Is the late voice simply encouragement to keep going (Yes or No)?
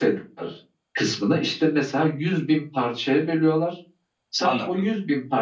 Yes